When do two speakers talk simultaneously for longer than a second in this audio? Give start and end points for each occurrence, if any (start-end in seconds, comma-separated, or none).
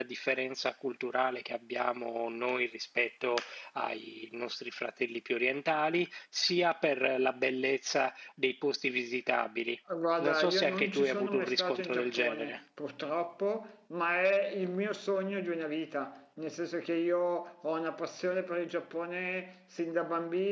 10.2-12.6